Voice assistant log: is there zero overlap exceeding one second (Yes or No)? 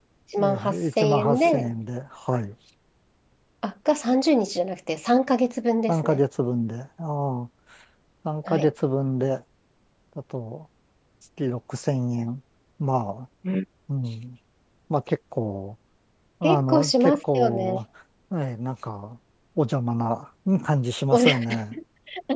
No